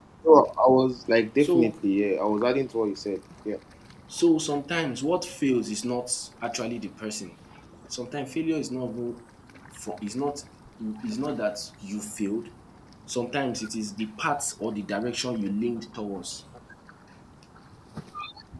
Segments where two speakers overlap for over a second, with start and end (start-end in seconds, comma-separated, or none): none